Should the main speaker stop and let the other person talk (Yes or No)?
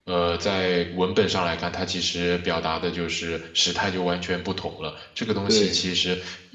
No